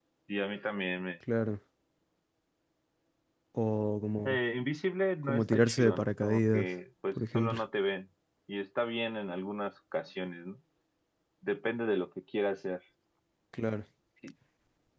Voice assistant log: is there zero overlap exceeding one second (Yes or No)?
No